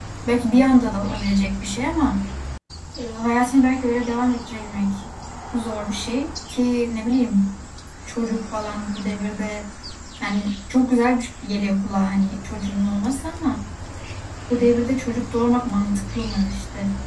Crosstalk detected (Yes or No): No